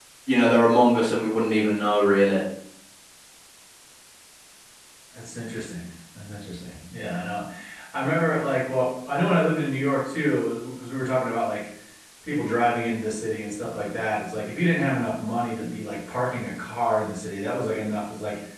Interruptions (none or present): none